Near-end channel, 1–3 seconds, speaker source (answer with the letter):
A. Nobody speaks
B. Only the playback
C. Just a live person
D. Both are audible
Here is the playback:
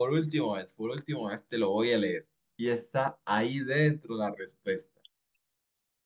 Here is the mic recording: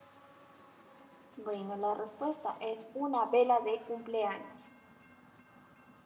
C